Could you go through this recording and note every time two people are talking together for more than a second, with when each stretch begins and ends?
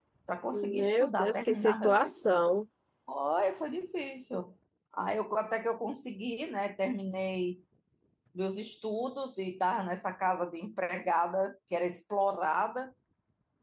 0.5-2.2

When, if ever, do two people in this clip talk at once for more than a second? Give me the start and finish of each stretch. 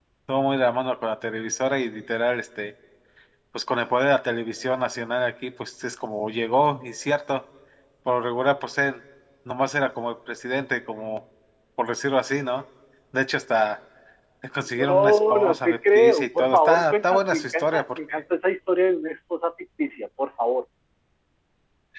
14.8-18.2

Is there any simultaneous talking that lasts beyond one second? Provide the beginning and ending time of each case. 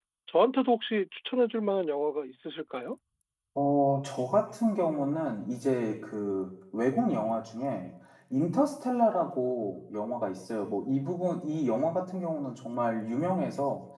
none

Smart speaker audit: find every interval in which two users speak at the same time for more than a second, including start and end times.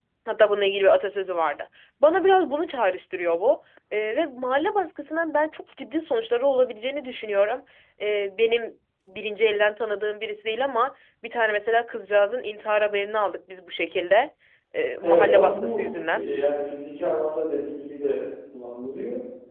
15.0-16.2

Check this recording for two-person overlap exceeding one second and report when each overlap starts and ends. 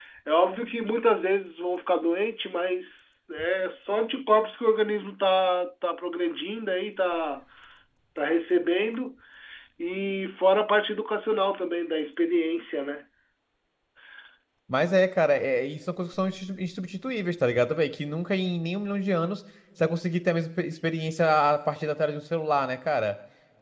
none

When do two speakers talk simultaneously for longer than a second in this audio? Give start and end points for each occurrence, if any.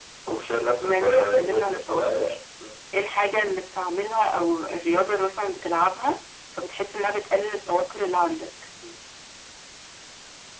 0.8-2.4

